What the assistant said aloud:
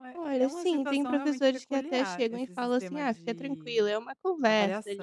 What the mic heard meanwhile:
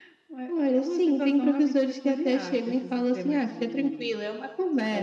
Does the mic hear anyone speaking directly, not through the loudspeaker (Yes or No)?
No